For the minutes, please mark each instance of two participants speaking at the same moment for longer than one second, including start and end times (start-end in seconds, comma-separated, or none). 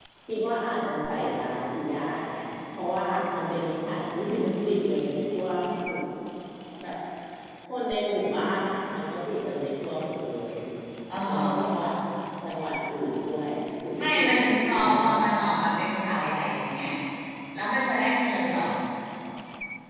14.0-15.3